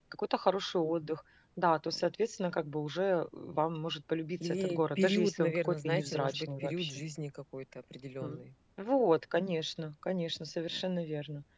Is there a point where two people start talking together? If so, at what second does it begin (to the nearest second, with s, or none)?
4 s